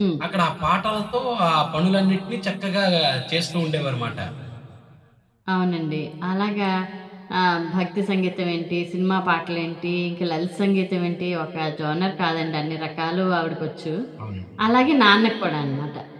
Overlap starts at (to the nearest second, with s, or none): none